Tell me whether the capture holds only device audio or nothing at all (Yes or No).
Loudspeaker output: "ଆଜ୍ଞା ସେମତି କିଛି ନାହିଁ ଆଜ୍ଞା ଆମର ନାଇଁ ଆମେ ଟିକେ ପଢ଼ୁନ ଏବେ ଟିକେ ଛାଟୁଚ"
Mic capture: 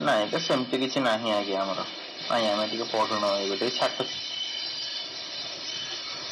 Yes